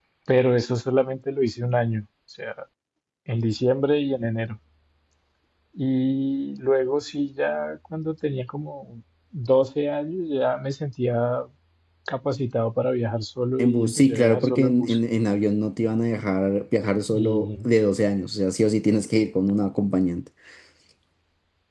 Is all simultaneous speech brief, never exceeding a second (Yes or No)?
No